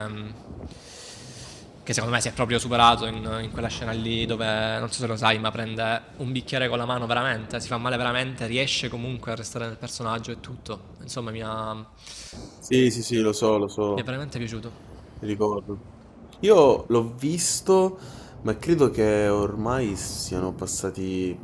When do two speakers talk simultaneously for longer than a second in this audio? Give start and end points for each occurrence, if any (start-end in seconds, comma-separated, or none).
none